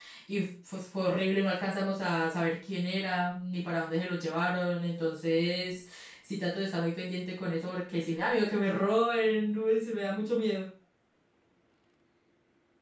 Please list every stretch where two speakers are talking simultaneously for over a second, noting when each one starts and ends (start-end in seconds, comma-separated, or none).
none